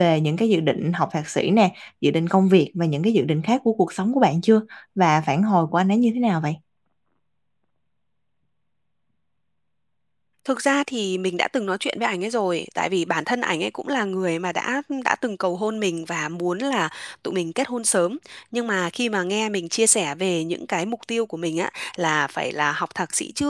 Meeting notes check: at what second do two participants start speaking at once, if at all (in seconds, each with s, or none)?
none